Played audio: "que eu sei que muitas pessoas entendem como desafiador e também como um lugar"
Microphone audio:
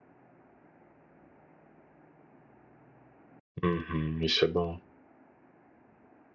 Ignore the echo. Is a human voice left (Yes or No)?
Yes